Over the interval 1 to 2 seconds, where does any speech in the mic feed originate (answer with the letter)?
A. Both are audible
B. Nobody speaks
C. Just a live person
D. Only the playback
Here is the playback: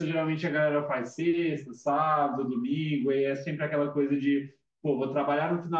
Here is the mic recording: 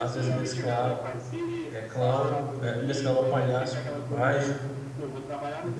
A